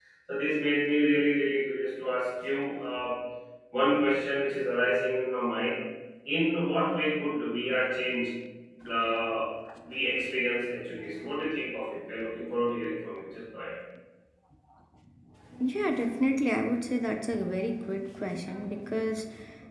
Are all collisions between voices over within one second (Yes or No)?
Yes